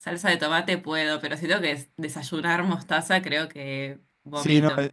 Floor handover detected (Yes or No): Yes